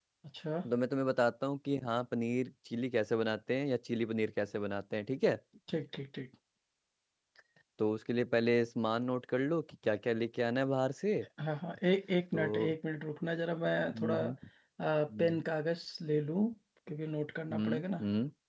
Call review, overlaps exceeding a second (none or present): none